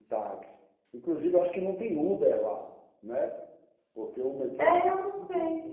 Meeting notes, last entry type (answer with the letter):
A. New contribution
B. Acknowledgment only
A